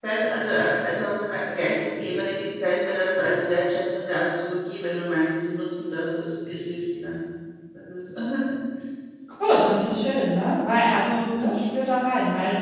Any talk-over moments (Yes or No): No